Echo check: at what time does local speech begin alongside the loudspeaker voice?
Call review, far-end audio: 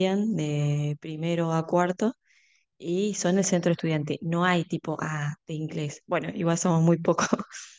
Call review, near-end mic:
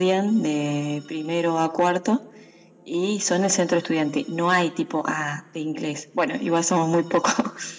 none

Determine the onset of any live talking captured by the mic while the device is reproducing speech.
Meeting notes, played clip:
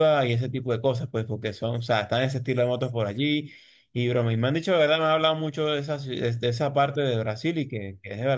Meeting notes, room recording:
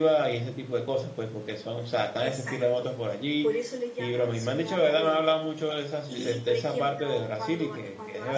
2.2 s

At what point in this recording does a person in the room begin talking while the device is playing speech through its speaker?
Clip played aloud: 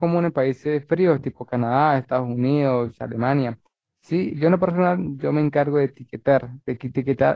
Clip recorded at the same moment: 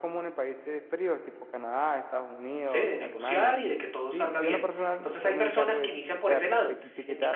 2.6 s

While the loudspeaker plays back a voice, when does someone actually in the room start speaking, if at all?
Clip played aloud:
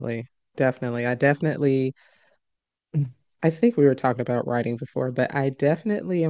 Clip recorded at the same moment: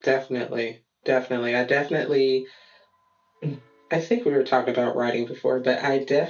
none

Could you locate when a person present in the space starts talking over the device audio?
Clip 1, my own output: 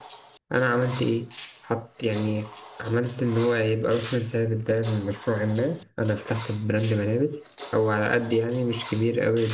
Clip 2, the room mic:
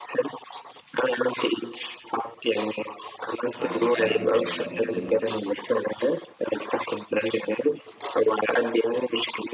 3.5 s

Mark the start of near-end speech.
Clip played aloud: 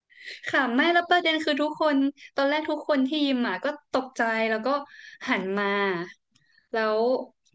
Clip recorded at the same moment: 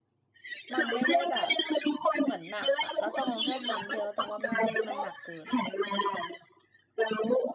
0.7 s

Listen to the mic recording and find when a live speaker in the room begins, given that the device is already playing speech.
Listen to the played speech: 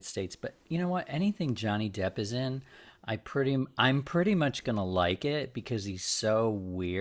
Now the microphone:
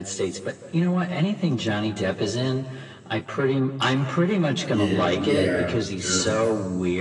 4.7 s

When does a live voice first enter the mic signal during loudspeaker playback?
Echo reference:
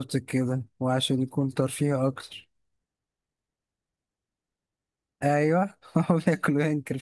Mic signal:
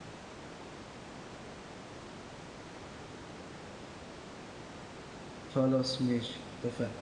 5.5 s

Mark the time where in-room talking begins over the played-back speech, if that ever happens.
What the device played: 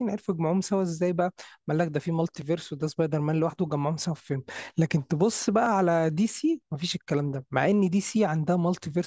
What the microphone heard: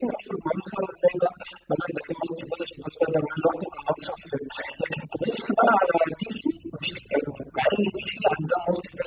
none

